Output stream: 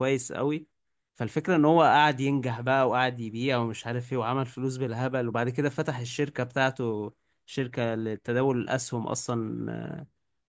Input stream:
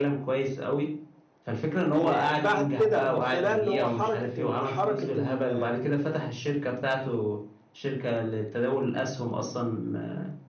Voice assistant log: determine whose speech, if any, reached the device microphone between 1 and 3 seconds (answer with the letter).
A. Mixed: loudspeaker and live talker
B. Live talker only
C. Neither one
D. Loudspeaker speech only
A